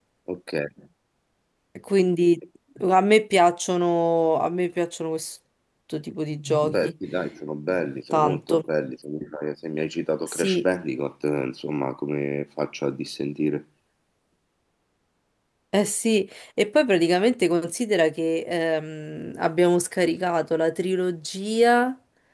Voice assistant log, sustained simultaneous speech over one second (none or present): none